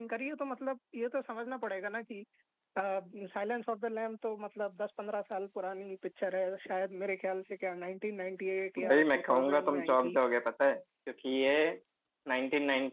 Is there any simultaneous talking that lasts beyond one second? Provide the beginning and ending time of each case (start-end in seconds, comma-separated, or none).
8.8-10.2